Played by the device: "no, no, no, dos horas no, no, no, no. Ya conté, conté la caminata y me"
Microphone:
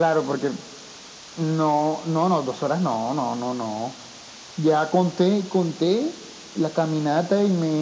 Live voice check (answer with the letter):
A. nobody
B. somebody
A